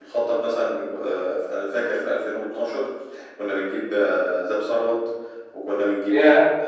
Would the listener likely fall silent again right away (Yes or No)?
Yes